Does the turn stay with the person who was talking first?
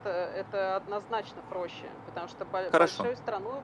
Yes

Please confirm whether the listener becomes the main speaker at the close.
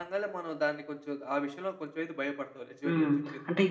Yes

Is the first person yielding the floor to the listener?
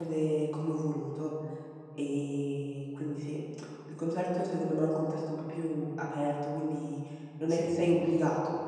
No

